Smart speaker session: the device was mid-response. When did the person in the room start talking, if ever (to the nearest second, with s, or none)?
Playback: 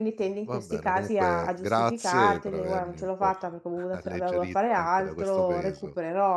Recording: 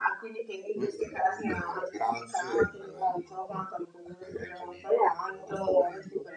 none